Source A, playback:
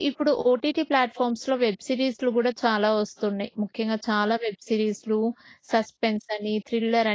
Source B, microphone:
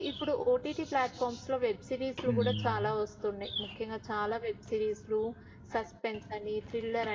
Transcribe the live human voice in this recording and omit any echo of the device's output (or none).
హ్మ్.